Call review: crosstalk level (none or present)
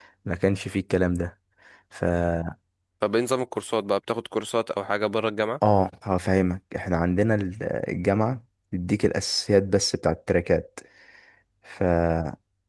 none